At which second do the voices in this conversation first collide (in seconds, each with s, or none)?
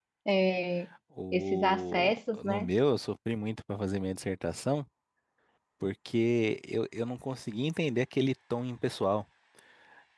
1.3 s